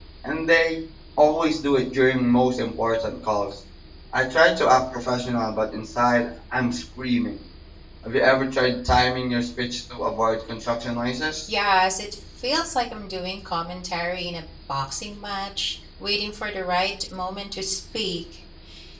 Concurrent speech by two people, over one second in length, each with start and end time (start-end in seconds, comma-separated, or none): none